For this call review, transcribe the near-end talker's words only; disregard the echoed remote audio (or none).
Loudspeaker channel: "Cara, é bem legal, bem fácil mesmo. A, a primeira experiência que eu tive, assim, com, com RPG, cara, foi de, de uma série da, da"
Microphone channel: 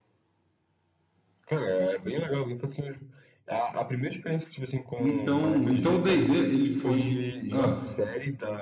Então, então o D&D, ele foi. Ah,